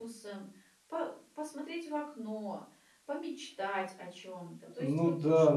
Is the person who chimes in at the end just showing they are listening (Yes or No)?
No